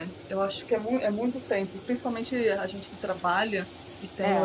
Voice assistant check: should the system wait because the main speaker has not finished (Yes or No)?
Yes